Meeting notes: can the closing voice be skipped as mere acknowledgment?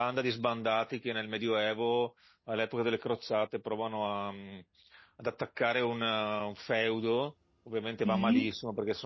Yes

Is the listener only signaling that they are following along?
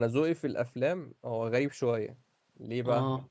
Yes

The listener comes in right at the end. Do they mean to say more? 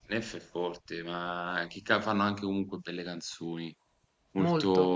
Yes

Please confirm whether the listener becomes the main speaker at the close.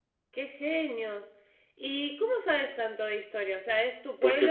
Yes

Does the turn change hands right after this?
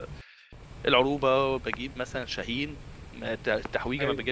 No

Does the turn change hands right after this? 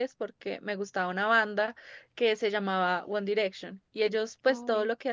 No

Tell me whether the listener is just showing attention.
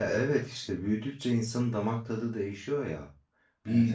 Yes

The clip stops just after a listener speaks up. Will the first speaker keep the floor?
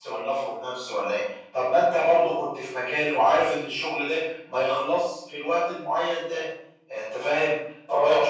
Yes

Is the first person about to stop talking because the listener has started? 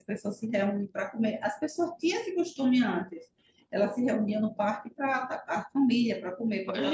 Yes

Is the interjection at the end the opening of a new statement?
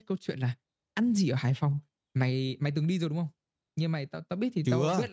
No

